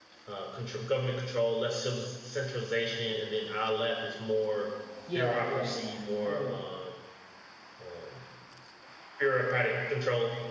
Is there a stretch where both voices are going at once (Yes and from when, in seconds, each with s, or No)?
Yes, from 5.2 s